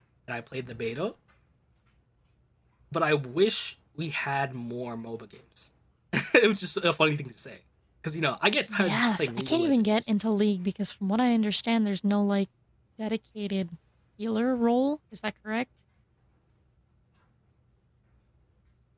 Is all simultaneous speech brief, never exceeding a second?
No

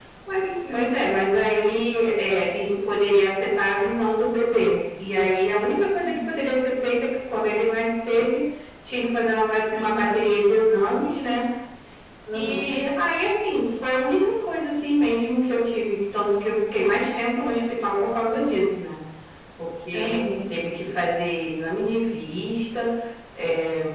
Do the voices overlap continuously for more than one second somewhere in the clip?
No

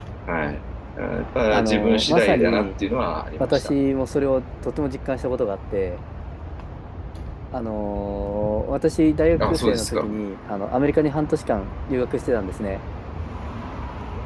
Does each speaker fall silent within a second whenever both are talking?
No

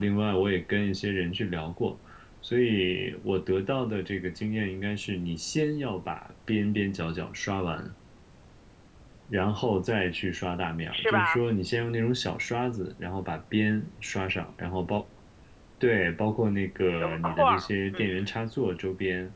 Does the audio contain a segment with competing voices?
Yes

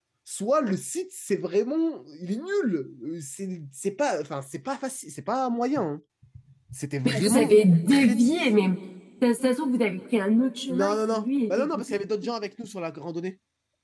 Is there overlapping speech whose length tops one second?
Yes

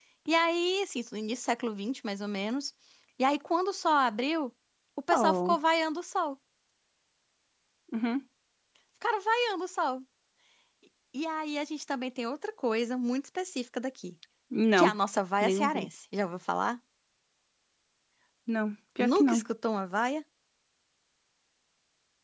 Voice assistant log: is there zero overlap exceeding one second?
Yes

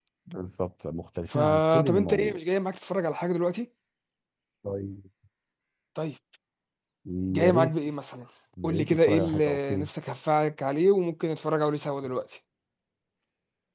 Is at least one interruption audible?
Yes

